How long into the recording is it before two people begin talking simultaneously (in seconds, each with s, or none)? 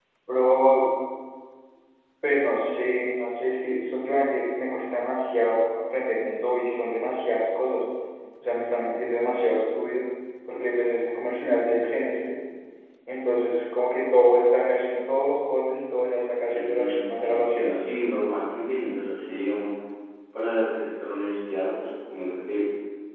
16.5 s